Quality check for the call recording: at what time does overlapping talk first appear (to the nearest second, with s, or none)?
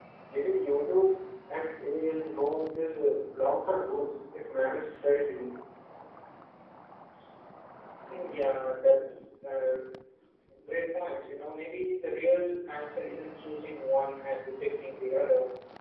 none